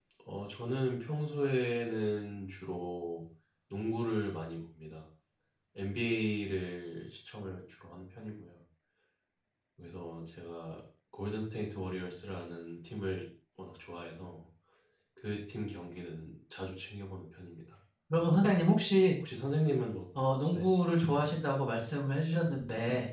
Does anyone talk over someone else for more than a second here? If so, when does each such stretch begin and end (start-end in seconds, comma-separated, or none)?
none